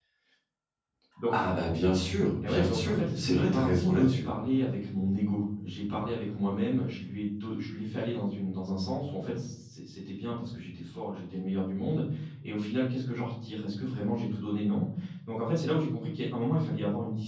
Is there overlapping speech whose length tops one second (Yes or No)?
Yes